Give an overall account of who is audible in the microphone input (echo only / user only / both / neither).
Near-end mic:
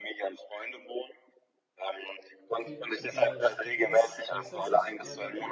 both